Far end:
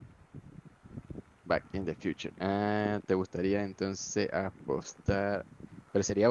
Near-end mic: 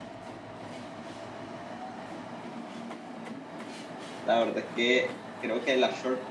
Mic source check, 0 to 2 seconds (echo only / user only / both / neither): neither